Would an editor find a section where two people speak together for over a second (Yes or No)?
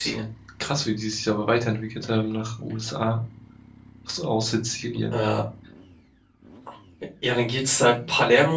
No